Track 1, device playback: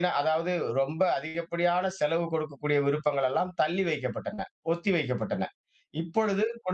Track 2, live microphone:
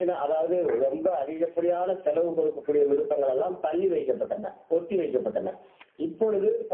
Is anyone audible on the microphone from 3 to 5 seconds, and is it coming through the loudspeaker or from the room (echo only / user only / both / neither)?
echo only